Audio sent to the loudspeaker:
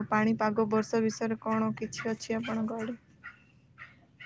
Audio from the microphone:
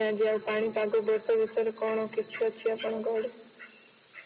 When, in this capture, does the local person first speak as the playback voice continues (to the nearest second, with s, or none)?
none